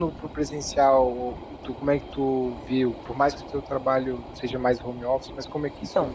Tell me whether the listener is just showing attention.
No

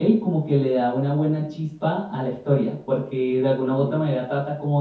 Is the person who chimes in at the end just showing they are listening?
Yes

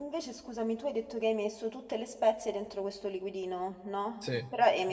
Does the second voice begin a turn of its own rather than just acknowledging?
No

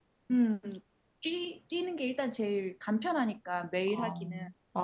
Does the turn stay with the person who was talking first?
No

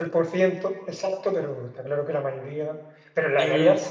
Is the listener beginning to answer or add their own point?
No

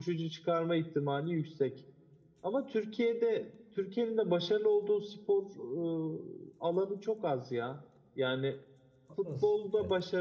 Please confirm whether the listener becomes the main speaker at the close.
No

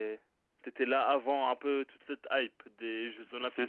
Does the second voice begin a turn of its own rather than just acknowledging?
Yes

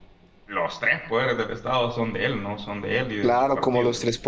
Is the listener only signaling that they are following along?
No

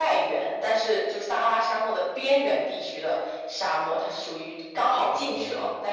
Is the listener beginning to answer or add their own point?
No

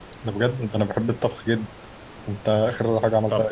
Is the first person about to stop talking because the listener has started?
No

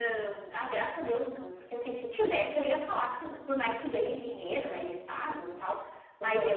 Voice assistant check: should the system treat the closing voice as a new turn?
No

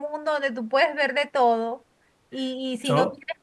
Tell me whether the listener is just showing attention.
Yes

